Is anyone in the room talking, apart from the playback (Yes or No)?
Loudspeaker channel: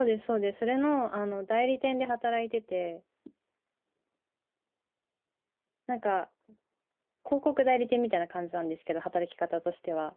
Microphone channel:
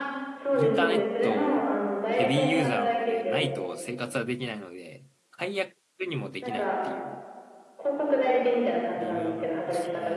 Yes